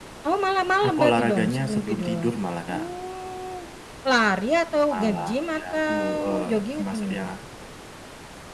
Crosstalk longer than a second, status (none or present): present